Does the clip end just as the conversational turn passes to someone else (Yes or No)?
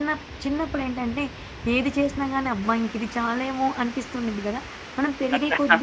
No